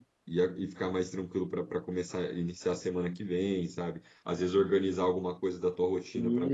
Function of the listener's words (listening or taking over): listening